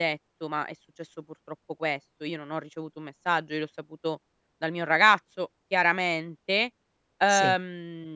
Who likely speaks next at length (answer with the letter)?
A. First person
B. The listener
A